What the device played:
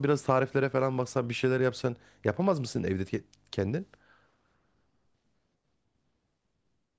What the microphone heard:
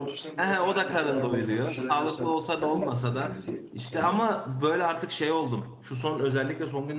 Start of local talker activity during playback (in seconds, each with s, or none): 0.4 s